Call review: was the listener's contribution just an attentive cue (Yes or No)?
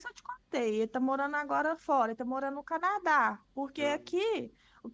Yes